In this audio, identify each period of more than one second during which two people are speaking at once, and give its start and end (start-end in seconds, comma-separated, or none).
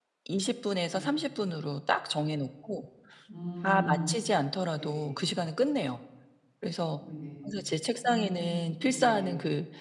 none